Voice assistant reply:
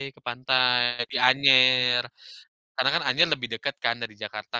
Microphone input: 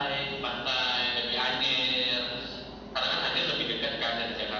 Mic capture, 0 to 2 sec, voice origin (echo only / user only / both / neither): echo only